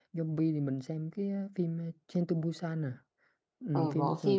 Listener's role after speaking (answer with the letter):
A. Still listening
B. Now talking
B